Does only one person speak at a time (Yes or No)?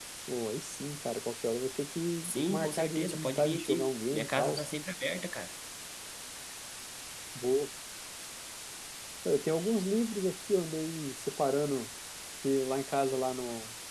No